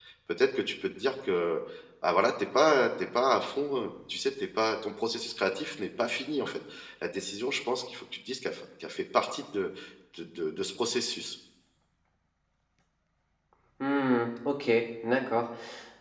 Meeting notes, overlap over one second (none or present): none